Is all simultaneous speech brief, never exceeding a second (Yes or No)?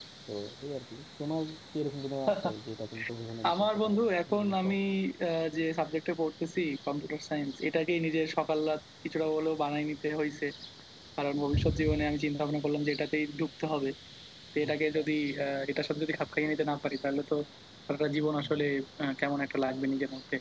No